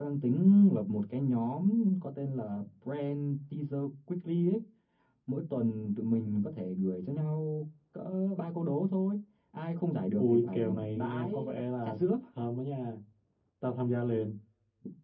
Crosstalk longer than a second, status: present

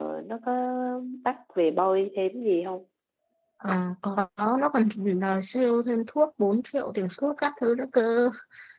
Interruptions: none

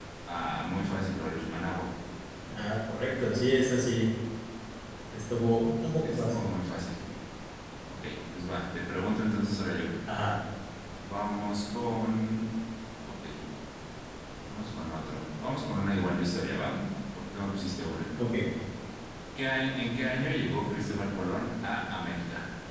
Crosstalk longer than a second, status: none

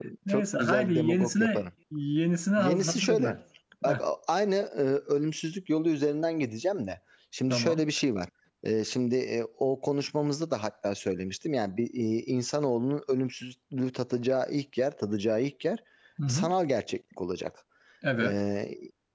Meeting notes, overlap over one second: present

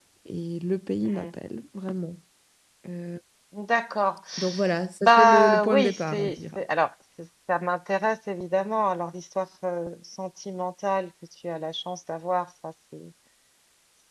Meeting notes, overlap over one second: present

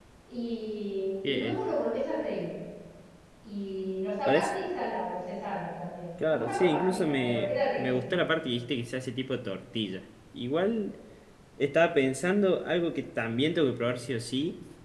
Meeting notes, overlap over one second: present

